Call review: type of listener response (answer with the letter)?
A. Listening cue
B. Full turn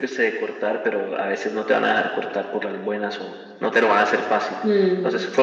B